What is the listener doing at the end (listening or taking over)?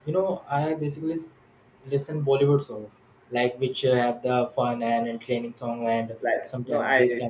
taking over